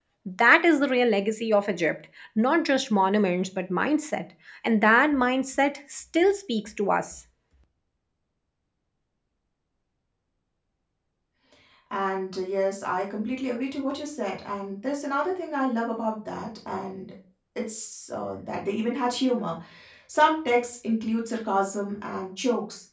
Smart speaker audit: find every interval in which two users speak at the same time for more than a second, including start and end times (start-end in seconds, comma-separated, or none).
none